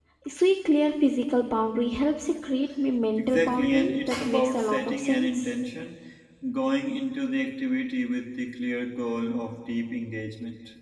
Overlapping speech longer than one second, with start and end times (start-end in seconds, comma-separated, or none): 3.2-5.5